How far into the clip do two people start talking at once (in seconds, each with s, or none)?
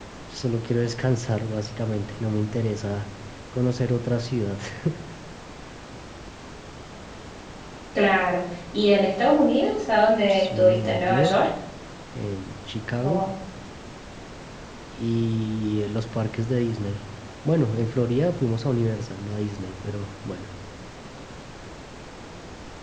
10.2 s